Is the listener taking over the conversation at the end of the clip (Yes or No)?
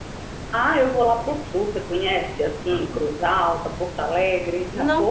Yes